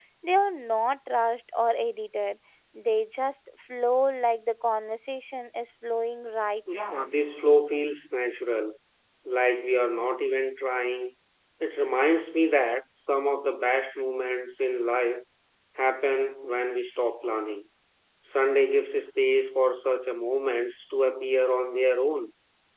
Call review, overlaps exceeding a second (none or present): none